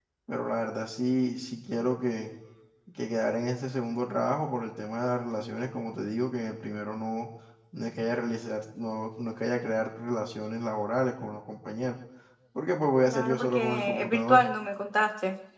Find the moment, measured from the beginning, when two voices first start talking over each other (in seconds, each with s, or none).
13.0 s